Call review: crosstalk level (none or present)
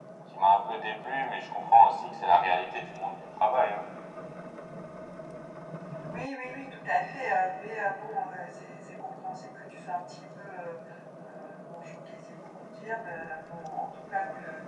none